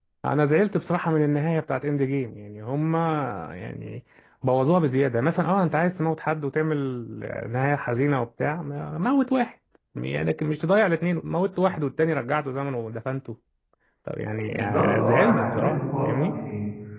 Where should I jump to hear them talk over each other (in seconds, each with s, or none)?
14.5 s